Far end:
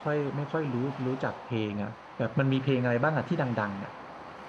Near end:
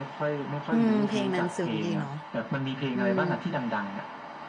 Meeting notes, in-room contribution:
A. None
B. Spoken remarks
B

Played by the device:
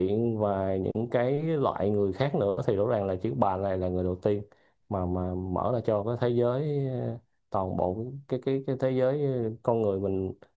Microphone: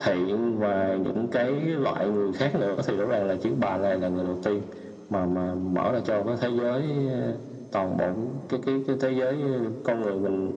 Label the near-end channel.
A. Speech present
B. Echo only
B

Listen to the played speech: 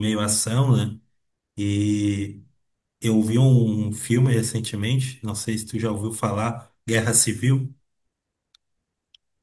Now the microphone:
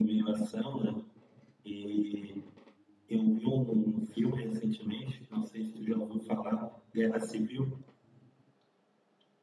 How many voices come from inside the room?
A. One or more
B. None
B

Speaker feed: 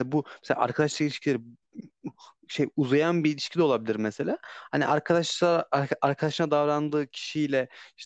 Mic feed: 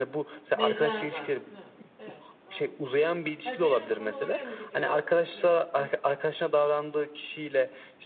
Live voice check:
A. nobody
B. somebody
B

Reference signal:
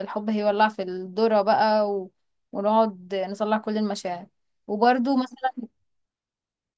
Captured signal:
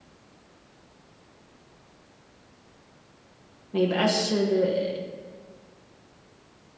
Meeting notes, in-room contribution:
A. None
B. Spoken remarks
B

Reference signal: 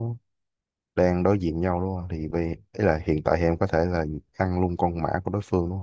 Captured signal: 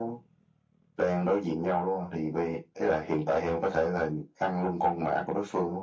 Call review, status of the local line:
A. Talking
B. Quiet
B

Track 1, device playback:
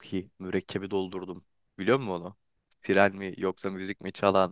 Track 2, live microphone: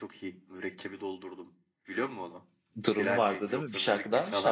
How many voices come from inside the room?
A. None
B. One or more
B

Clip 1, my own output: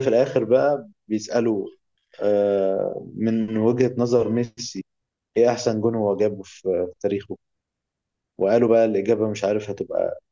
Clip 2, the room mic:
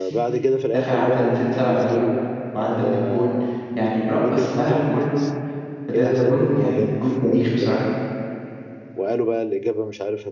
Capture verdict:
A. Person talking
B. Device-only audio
A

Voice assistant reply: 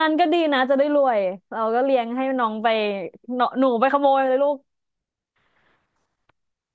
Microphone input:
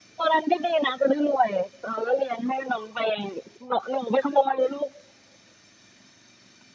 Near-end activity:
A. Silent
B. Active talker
A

